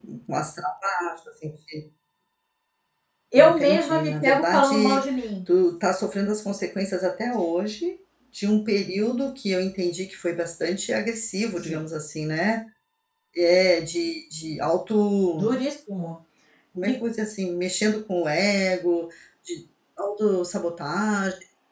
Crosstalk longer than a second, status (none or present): present